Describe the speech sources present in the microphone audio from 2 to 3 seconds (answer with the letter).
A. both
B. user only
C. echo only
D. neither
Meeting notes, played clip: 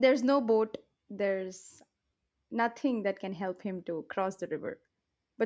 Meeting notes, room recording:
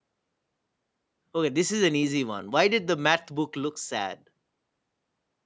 B